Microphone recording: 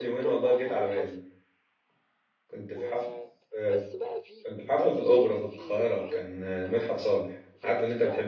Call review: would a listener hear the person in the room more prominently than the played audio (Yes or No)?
Yes